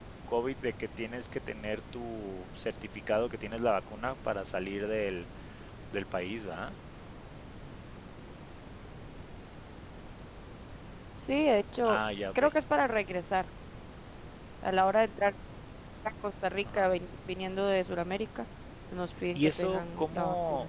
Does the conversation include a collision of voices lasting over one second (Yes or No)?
Yes